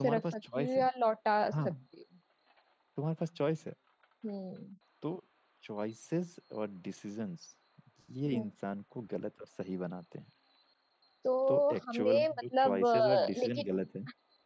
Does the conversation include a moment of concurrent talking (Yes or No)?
Yes